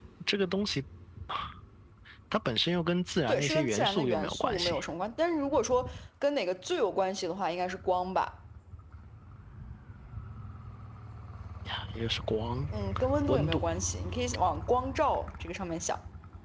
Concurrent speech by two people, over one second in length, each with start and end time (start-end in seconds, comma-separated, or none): 3.3-4.8